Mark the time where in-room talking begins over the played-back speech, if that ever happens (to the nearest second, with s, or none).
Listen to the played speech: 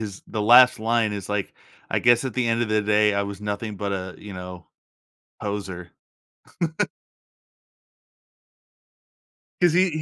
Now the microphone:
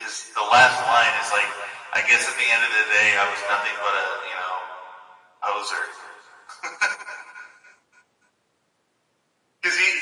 none